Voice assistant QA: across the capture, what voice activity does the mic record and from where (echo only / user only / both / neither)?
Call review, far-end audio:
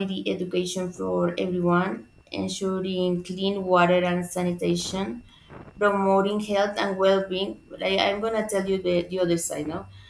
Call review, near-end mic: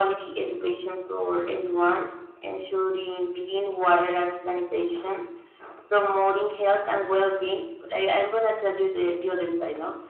echo only